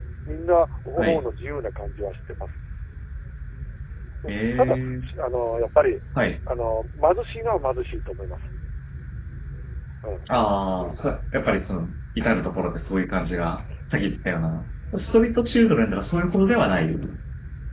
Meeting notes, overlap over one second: none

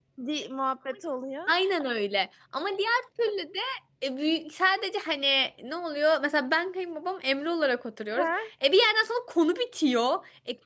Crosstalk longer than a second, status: none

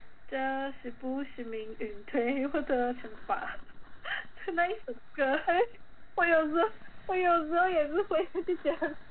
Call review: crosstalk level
none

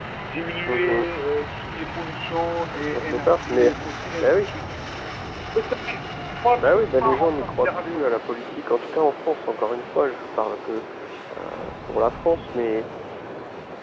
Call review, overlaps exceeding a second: present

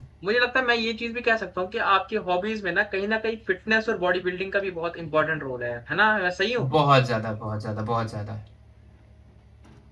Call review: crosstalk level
none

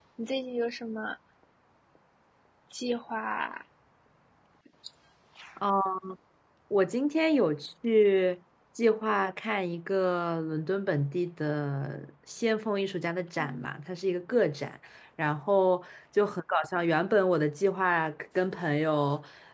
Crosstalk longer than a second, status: none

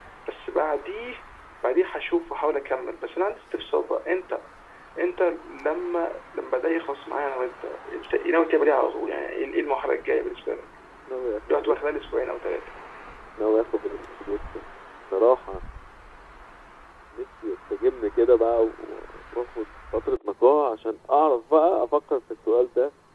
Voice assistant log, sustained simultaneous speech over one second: none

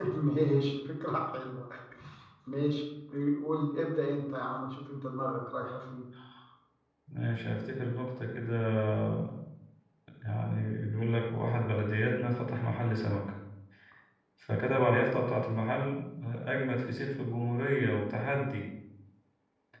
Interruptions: none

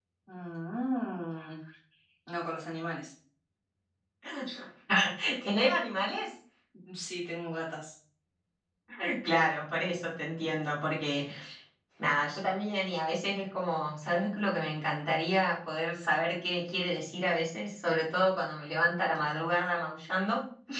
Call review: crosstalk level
none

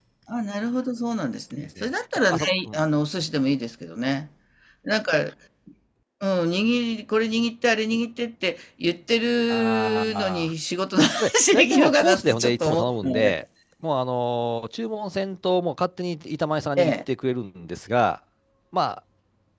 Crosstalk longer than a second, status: present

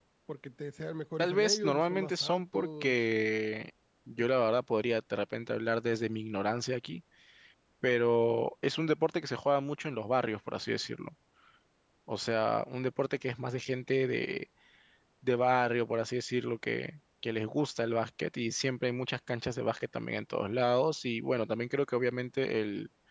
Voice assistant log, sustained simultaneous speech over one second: present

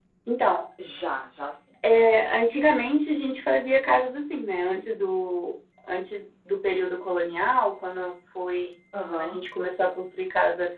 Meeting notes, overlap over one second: none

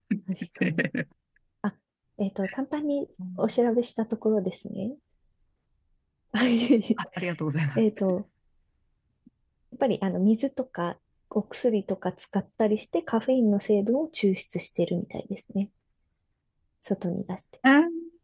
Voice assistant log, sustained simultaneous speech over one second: none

